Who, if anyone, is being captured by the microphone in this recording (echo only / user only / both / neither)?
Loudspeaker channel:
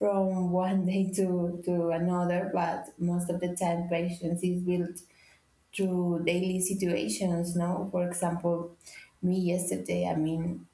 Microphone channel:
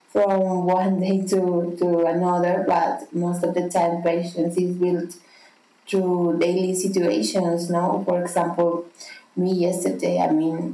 echo only